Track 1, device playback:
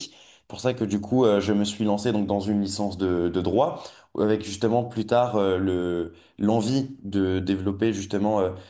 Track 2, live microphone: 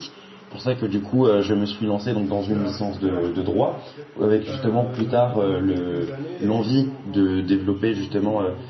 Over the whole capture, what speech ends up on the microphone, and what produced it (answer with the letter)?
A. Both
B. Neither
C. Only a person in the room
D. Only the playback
A